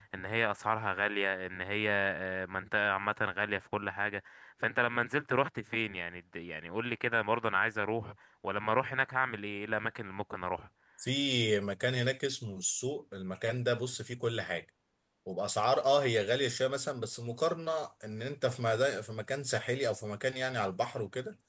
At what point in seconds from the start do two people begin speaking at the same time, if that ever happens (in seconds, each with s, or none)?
none